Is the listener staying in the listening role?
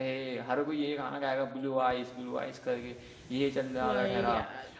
Yes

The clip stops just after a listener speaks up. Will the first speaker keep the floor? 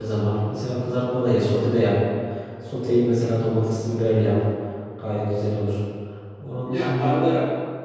No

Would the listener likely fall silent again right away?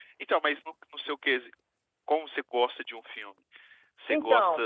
Yes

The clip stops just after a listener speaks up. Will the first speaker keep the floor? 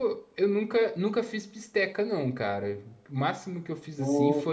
Yes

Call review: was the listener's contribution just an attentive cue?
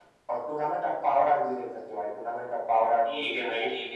No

